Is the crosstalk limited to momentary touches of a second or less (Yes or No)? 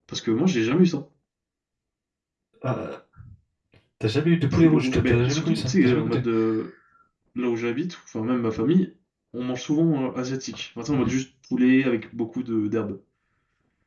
No